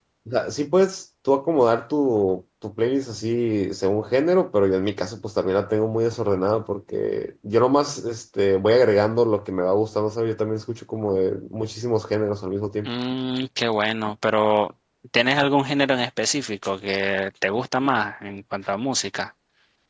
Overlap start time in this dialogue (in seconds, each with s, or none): none